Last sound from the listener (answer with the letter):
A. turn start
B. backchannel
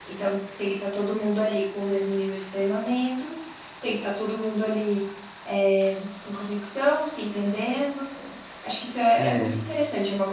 B